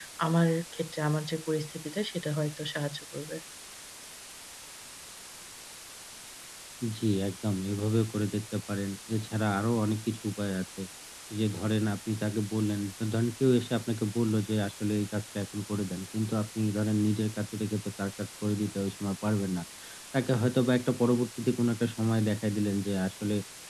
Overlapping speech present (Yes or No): No